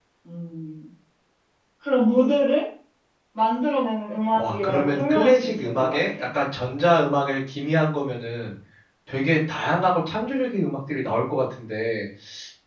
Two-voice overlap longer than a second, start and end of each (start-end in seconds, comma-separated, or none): 4.4-6.0